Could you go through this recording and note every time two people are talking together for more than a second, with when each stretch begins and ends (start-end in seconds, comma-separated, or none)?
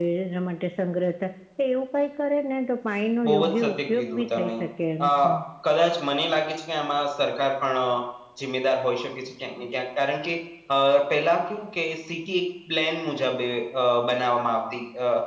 3.3-4.5